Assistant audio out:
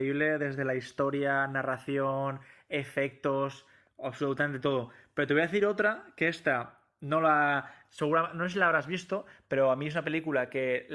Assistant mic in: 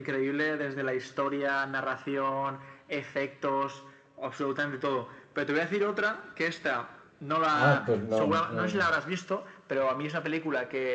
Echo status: present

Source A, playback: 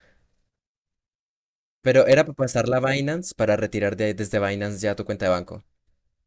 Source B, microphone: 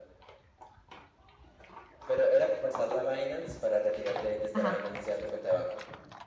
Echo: present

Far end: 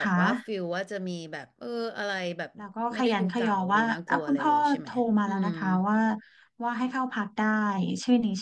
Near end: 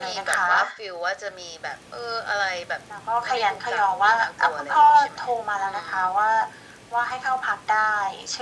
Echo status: present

